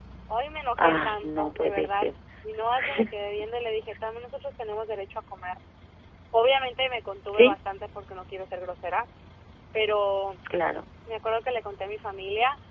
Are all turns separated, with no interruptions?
No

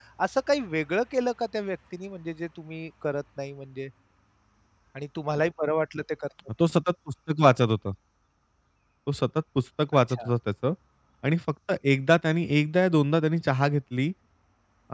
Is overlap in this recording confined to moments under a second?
Yes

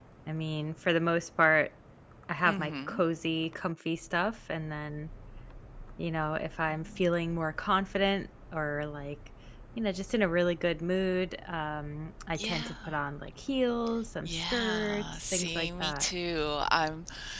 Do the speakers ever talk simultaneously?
Yes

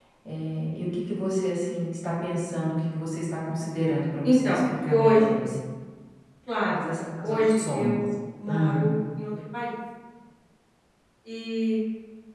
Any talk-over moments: Yes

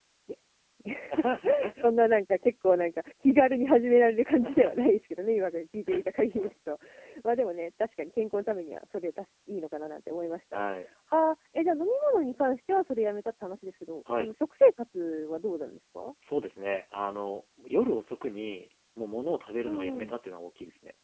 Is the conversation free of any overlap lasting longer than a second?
Yes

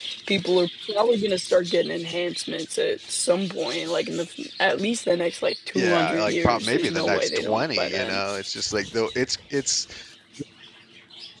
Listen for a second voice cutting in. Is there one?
Yes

